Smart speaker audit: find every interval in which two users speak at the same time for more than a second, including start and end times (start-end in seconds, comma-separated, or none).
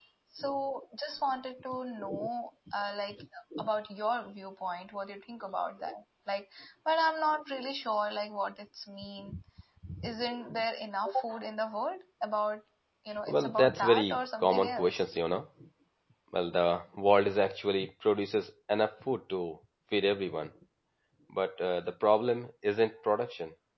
13.3-15.1